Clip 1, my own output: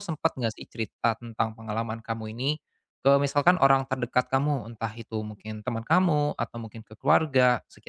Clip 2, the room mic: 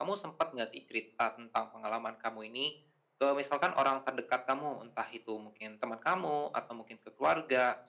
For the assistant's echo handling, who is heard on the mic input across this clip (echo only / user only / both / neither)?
echo only